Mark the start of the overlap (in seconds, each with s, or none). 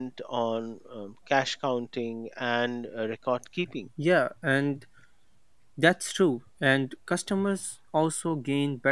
none